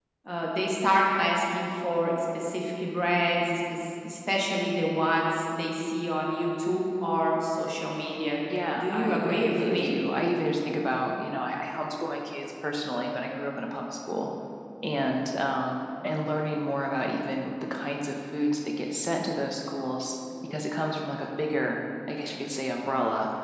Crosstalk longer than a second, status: present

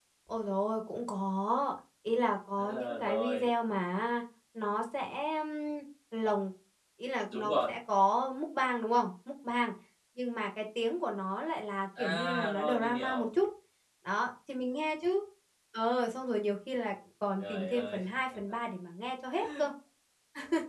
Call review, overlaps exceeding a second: present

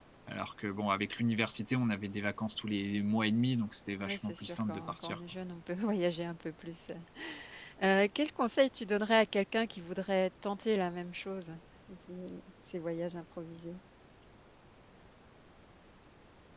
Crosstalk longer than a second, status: present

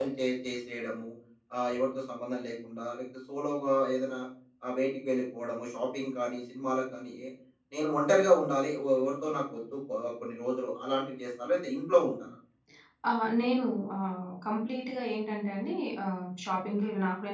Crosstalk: none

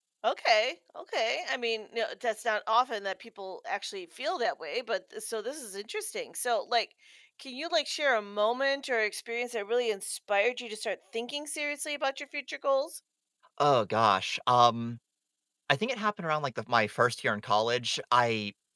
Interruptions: none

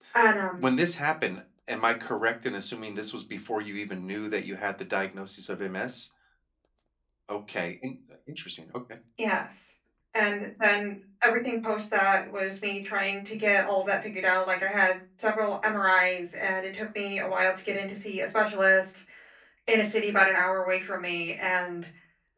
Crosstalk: none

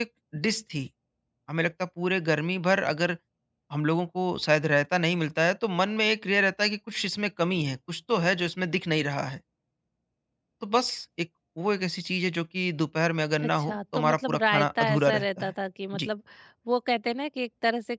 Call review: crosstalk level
present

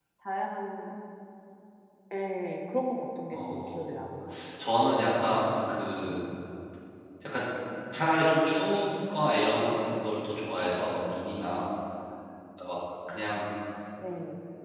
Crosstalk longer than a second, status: none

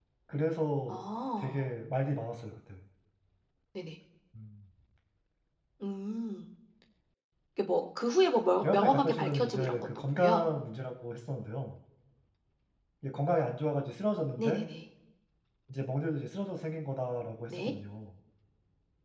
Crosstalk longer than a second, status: present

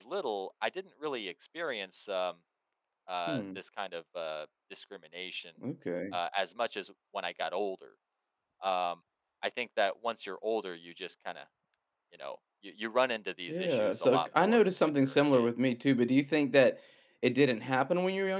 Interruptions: present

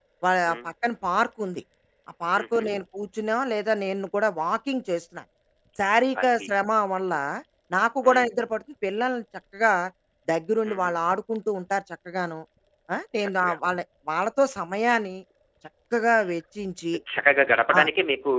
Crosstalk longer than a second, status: none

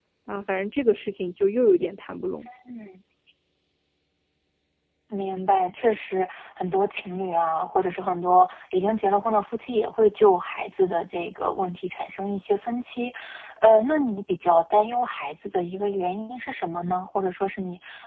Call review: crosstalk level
none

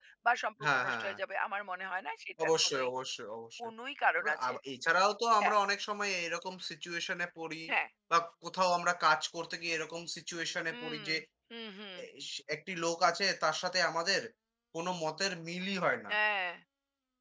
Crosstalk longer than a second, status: none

